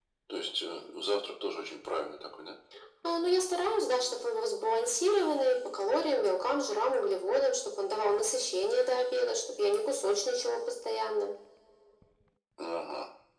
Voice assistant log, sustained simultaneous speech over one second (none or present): none